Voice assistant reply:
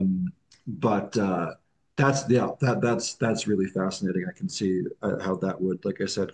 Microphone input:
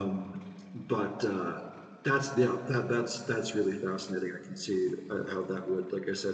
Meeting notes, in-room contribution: none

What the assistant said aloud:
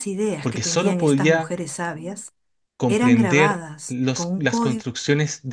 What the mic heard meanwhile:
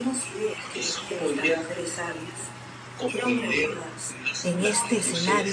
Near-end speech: present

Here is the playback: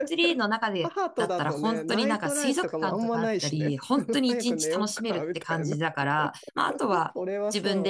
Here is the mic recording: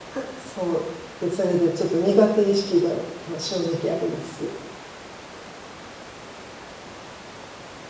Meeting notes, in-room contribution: present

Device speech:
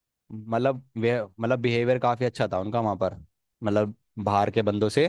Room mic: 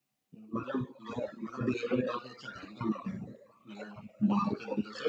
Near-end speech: none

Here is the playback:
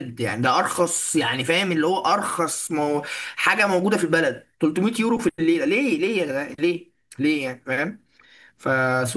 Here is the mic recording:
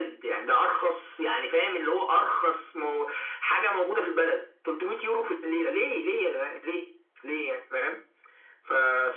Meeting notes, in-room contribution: none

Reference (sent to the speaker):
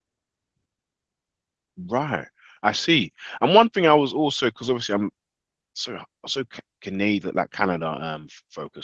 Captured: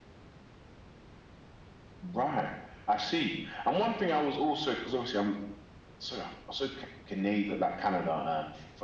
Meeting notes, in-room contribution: none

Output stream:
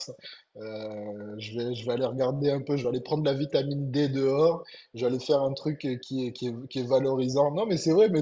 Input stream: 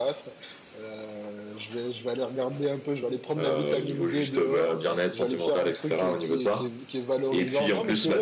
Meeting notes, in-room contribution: present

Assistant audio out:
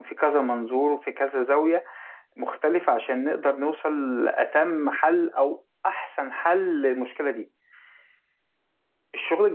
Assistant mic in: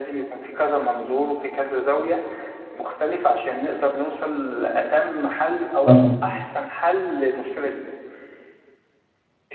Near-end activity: present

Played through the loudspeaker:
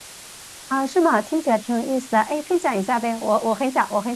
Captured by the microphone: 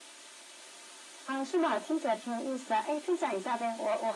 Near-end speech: none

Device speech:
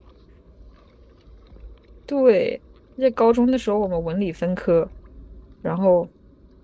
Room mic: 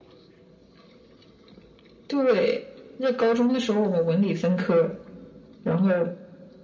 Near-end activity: none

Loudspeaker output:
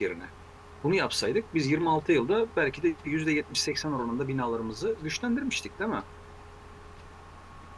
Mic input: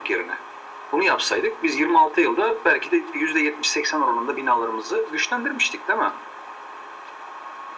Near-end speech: none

